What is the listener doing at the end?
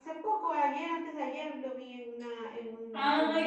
taking over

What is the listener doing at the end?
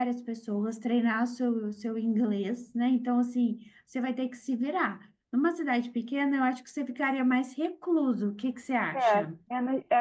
taking over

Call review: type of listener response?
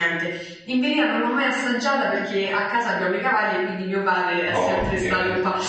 listening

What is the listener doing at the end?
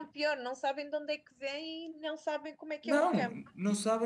taking over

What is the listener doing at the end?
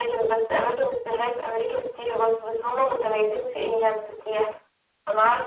listening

